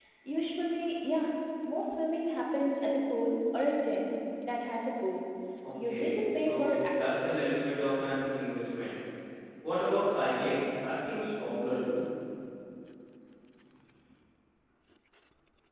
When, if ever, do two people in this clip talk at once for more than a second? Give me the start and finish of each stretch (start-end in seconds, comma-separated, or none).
5.8-7.4